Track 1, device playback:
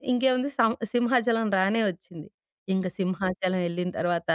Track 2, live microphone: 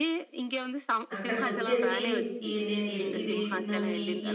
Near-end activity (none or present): present